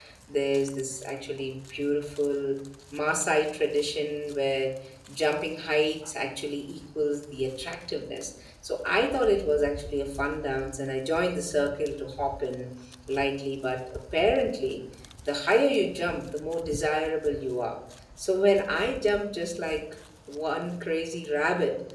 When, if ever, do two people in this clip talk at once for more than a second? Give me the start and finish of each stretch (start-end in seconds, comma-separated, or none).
none